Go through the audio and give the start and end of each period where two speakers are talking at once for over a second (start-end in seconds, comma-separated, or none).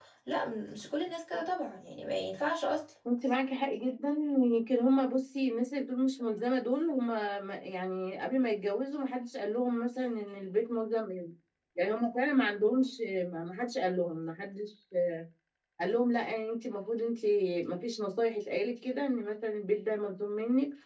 none